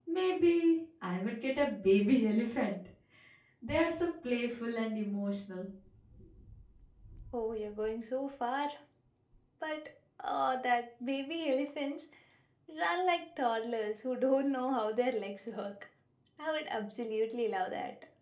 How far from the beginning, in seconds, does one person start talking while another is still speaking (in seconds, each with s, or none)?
none